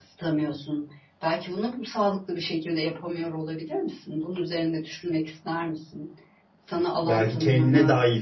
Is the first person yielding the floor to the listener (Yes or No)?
Yes